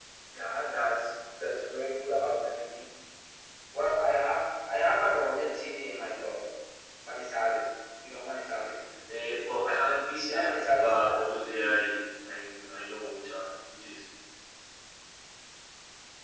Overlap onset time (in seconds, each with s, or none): 10.2 s